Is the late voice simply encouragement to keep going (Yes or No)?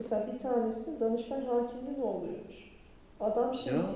Yes